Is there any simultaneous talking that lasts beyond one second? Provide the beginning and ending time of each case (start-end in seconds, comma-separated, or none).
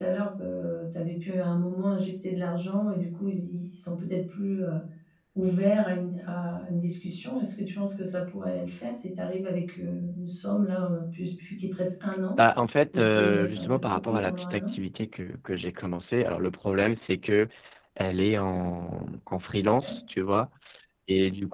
12.9-14.7